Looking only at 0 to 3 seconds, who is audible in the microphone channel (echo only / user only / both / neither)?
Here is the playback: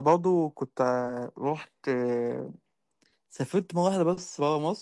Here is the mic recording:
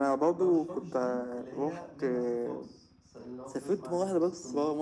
both